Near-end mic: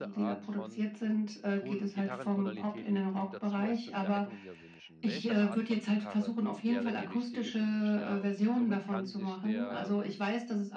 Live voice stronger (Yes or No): No